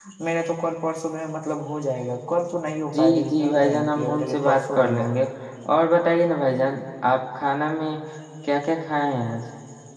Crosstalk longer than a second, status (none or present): present